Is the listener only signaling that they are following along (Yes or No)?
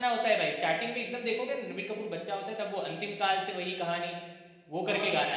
No